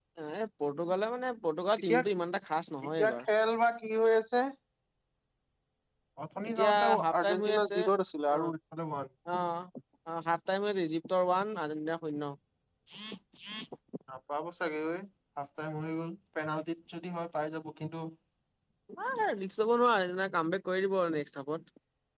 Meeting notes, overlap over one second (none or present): present